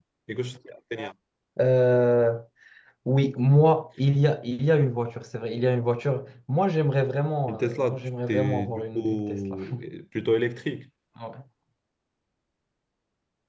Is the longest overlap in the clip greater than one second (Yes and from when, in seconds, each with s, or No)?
Yes, from 7.5 s